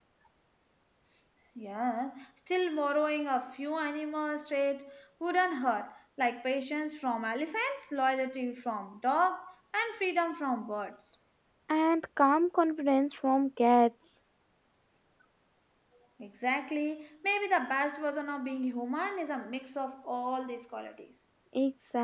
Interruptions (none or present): none